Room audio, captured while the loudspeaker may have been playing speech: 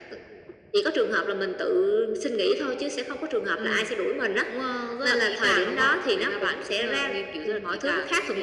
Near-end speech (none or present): none